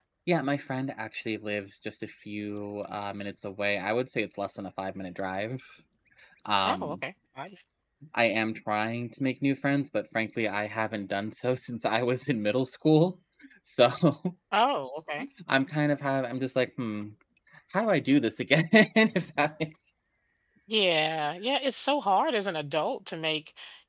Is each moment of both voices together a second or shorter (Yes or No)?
Yes